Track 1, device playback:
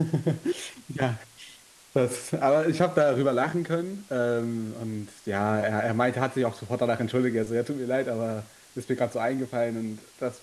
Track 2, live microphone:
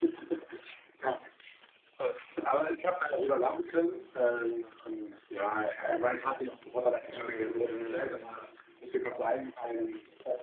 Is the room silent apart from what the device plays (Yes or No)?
No